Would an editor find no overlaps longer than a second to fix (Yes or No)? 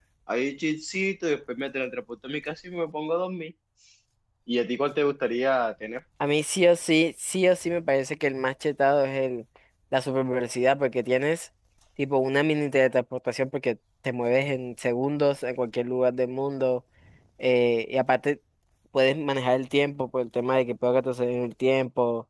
Yes